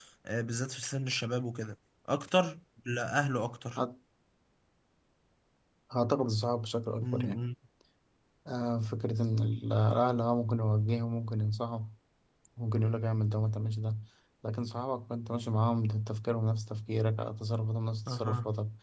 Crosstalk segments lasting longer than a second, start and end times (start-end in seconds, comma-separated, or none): none